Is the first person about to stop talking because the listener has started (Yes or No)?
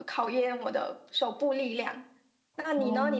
No